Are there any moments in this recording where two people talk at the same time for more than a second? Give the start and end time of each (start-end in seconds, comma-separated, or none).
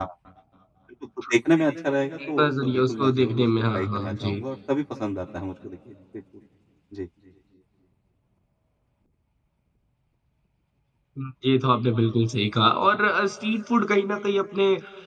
2.4-4.4